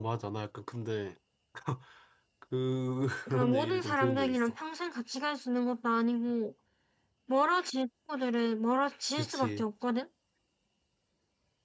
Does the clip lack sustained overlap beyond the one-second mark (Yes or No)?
No